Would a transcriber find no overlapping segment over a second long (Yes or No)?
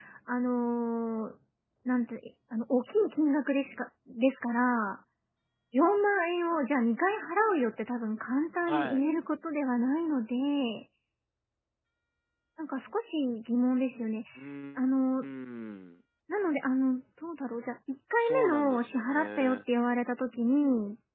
No